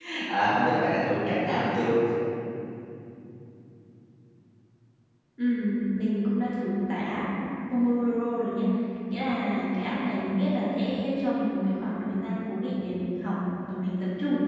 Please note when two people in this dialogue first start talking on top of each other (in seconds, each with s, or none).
none